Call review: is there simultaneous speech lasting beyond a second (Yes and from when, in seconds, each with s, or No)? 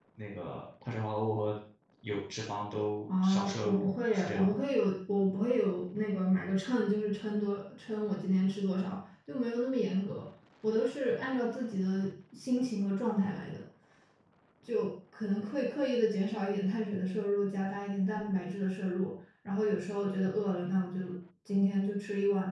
Yes, from 3.1 s